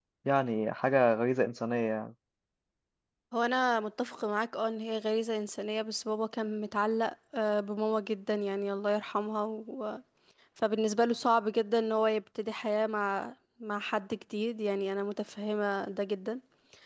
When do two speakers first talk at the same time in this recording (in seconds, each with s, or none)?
none